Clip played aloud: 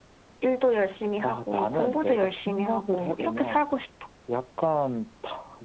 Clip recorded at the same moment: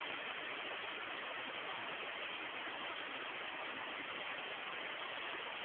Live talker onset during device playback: none

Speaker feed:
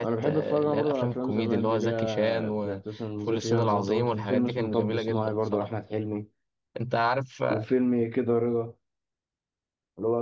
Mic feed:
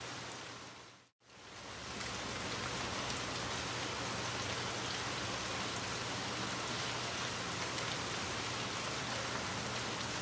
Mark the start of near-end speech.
none

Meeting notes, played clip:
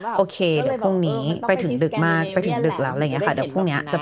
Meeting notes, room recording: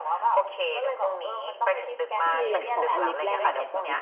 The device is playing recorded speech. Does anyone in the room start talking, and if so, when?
2.2 s

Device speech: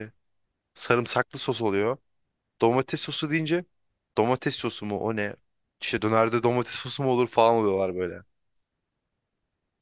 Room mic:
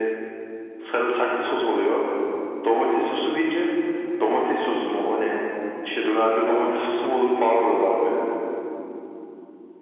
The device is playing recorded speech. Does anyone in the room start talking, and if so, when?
none

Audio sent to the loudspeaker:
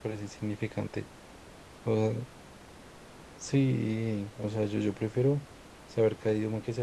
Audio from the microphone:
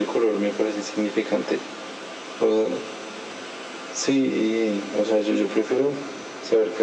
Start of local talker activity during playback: none

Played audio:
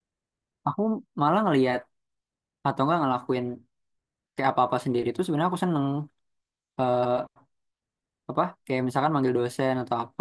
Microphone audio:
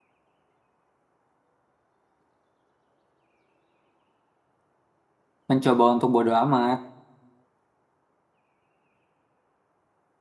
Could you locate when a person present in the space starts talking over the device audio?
5.5 s

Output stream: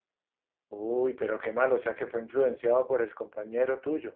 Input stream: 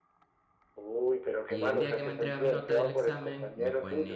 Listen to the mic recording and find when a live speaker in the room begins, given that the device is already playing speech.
1.5 s

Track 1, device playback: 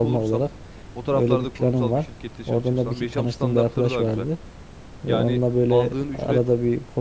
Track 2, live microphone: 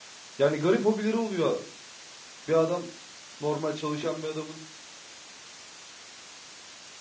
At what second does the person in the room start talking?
0.4 s

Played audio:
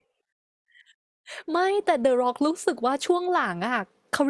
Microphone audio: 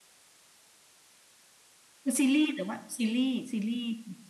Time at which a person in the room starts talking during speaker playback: 2.0 s

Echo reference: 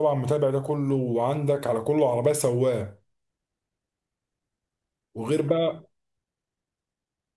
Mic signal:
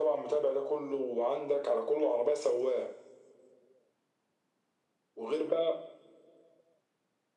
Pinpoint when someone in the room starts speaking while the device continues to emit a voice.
none

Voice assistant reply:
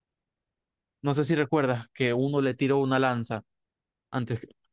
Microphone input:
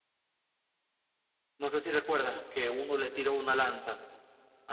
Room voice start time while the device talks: none

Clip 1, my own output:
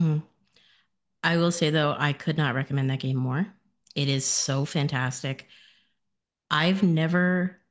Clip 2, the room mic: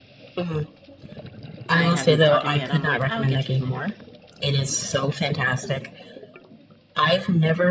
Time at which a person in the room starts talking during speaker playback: 1.7 s

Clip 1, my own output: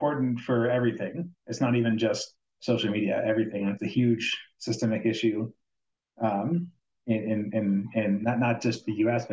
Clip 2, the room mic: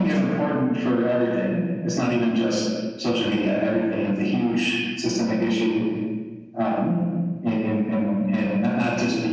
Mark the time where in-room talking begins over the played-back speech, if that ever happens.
none

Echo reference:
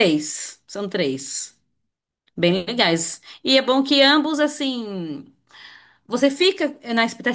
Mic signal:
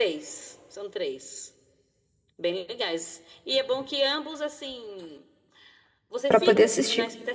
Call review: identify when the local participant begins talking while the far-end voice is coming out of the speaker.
6.3 s

